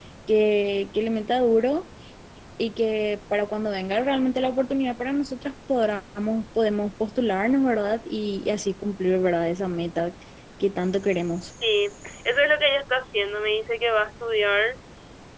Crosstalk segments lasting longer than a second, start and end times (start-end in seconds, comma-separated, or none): none